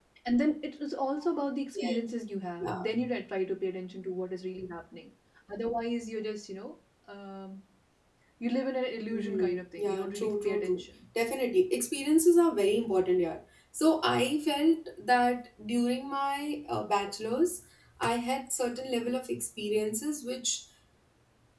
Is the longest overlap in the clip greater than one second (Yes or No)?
Yes